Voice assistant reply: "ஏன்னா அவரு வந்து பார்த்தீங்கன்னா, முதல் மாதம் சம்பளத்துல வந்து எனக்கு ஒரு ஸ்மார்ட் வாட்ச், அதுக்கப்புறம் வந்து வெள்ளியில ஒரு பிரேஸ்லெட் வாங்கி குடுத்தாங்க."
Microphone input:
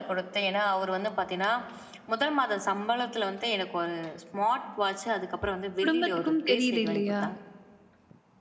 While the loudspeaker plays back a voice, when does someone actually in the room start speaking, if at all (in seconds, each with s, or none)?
5.8 s